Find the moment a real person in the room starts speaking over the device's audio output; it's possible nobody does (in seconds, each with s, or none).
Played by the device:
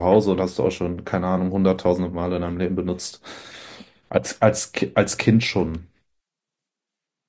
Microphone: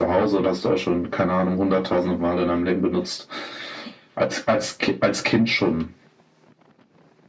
none